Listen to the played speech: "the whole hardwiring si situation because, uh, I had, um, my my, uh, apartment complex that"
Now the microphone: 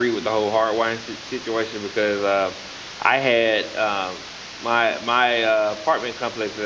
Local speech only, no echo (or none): none